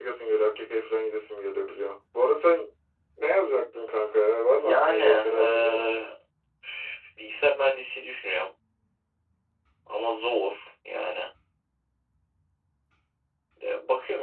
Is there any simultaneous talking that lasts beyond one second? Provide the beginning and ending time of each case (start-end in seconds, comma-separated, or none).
4.6-5.9